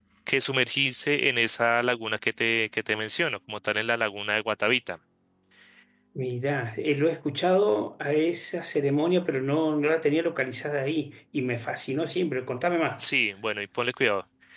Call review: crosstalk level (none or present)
none